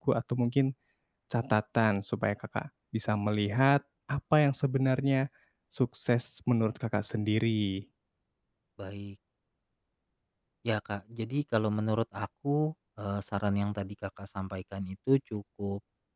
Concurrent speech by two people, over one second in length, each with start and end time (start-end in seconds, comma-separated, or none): none